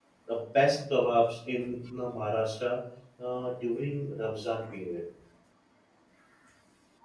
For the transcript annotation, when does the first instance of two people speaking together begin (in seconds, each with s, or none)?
none